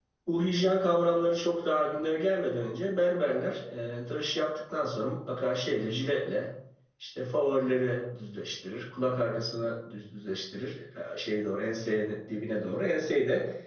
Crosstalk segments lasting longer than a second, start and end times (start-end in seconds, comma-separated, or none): none